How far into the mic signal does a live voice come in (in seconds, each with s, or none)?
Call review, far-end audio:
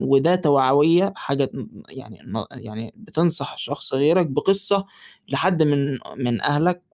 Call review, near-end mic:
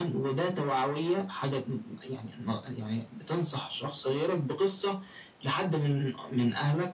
none